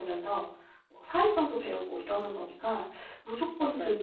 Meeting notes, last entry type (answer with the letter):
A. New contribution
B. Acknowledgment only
B